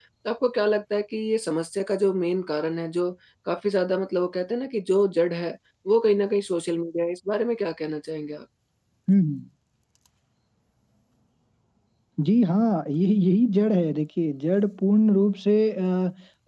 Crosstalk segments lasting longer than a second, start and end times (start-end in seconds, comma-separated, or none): none